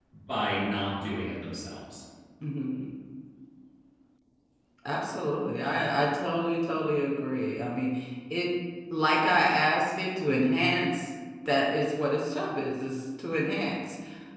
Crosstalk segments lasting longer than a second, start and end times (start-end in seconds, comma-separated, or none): none